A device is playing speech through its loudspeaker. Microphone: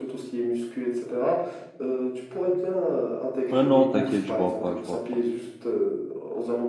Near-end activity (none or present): present